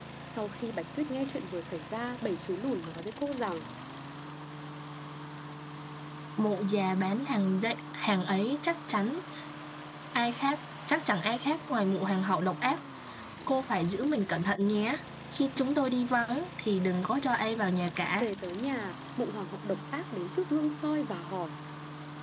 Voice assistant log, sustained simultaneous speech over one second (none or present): none